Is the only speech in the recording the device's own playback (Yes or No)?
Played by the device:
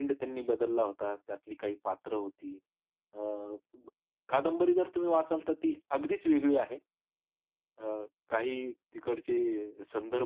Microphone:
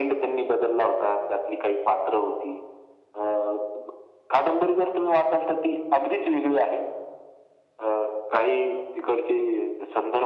Yes